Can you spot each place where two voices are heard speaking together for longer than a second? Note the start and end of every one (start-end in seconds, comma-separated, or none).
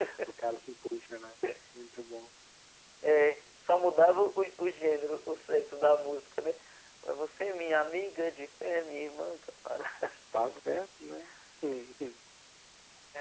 none